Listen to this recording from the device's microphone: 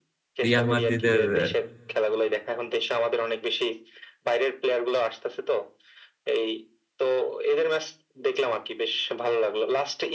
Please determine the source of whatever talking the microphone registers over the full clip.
both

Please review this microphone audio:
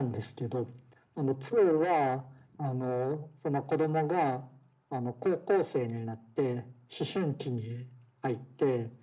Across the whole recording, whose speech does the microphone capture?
echo only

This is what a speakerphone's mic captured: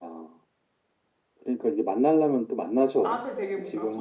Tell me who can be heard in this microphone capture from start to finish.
both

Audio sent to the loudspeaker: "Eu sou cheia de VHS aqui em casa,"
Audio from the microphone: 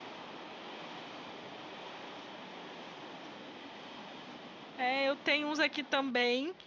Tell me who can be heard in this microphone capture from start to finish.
user only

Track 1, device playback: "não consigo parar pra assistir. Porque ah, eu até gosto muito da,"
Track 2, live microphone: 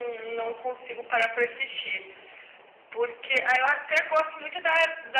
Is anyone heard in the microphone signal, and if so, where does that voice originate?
echo only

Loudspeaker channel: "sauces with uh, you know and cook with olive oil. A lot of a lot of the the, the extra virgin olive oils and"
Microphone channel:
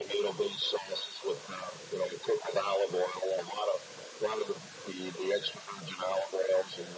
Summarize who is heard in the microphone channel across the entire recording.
echo only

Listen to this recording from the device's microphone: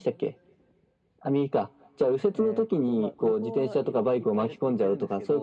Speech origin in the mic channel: both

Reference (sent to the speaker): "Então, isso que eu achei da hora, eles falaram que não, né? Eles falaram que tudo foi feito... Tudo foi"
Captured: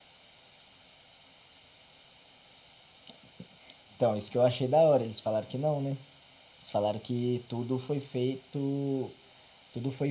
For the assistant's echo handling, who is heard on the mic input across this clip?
echo only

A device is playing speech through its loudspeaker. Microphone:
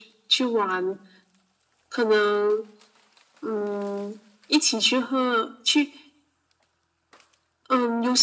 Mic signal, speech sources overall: echo only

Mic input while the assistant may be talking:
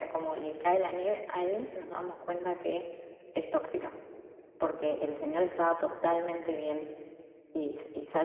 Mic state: echo only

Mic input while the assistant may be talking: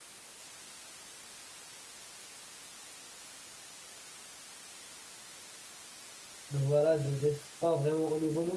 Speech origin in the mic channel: user only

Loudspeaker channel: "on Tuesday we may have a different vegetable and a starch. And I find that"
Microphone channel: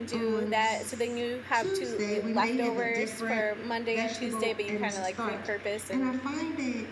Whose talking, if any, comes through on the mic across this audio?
both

